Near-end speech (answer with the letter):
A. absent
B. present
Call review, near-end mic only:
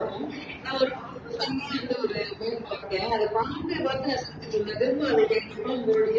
A